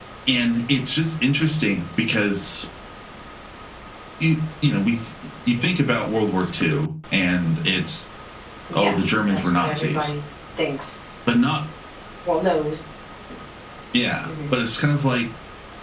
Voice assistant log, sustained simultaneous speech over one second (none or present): present